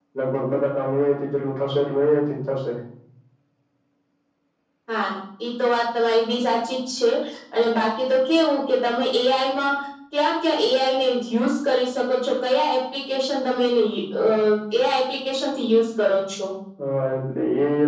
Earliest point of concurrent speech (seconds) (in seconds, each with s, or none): none